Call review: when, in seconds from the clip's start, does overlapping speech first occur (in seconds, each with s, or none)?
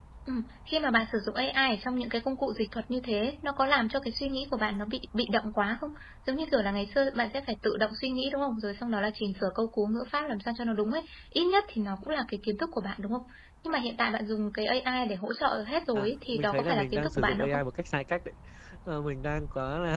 15.9 s